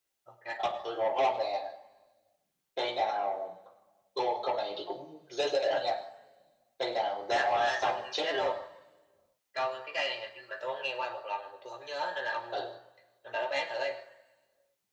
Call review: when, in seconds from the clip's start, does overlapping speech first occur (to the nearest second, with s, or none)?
7 s